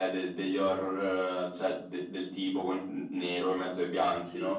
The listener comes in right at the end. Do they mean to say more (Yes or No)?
Yes